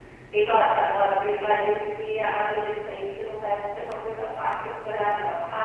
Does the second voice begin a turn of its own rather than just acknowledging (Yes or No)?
No